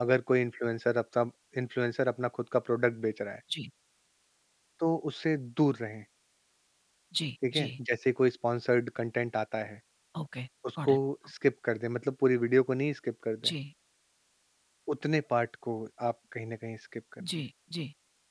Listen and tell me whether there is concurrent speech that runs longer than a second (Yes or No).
No